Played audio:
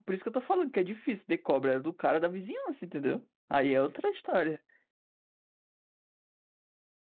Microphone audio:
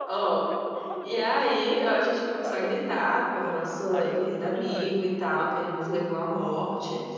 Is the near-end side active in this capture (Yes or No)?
Yes